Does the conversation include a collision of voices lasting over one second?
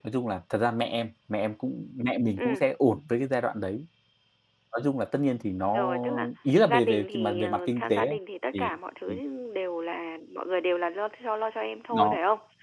Yes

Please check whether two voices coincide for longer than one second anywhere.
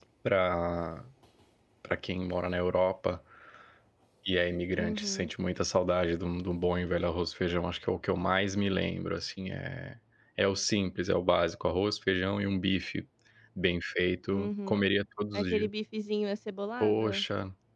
No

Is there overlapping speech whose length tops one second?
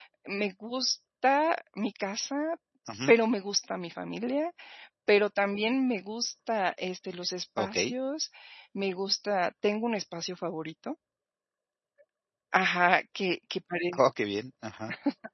No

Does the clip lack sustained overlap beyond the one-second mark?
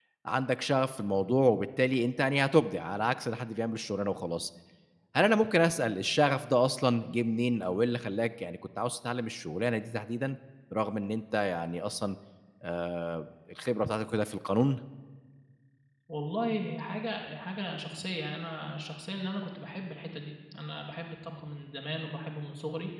Yes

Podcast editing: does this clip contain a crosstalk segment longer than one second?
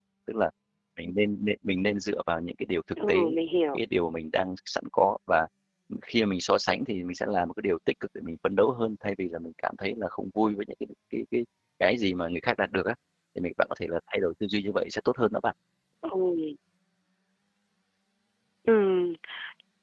No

